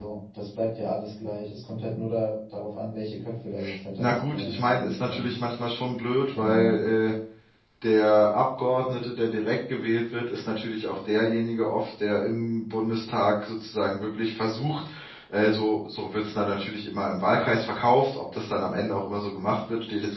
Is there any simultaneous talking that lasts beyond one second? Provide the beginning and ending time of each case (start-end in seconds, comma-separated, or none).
4.0-5.3